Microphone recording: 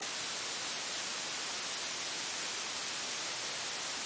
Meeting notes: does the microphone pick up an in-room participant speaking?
No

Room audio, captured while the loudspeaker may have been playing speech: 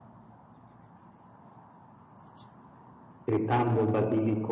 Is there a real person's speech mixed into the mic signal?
Yes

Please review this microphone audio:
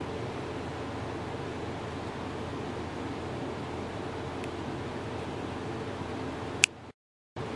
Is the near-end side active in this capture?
No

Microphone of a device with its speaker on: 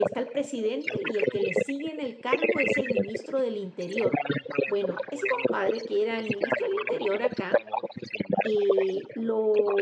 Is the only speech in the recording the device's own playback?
No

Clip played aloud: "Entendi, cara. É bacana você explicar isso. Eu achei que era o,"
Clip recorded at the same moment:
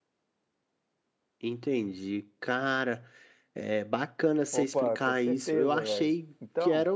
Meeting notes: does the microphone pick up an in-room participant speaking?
Yes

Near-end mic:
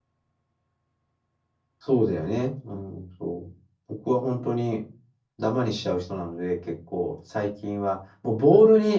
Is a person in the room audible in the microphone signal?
Yes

